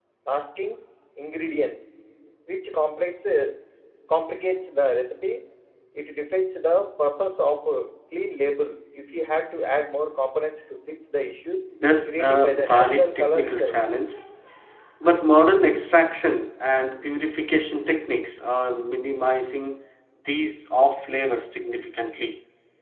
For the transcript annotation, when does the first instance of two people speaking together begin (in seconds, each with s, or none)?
12.1 s